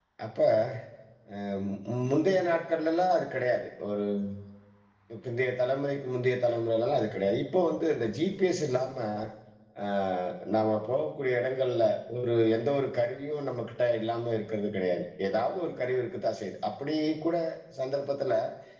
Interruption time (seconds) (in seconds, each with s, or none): none